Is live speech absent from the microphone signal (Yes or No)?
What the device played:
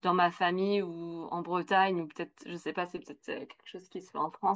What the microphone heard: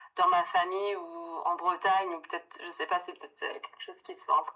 Yes